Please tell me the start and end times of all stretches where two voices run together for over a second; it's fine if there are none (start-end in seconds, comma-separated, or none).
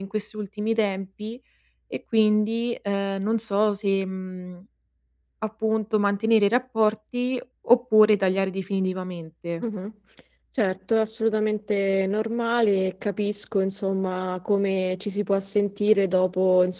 none